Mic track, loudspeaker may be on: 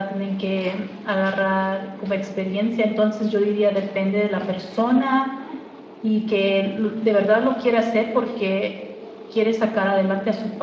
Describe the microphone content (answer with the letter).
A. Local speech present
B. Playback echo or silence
B